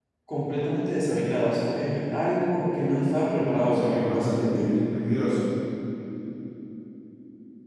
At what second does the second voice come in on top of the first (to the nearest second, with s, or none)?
3 s